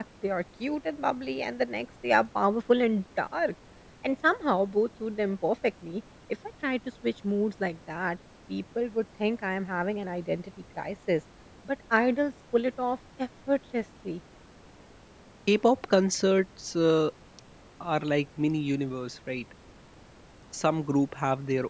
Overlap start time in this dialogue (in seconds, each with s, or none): none